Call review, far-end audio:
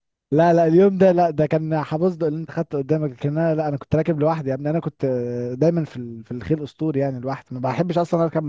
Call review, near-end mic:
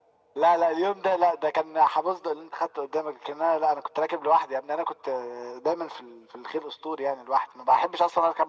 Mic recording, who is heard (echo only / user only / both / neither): echo only